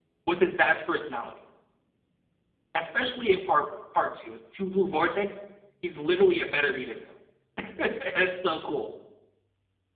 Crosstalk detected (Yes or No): No